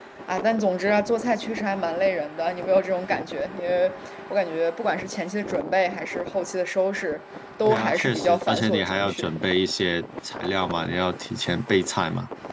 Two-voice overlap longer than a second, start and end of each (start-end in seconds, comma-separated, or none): 7.6-9.3